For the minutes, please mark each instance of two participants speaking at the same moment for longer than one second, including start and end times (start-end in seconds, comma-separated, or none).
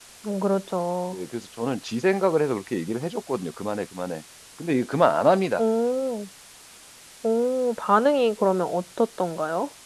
none